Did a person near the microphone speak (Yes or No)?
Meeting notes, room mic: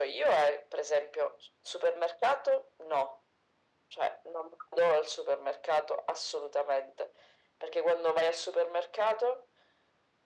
No